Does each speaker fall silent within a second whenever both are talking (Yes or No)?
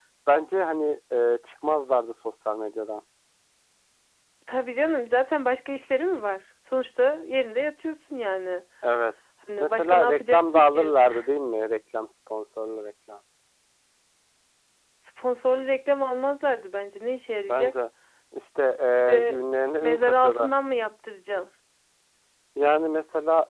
No